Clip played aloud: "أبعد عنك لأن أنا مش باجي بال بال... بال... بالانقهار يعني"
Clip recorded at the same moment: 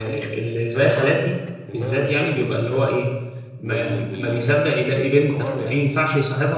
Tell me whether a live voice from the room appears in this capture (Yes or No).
Yes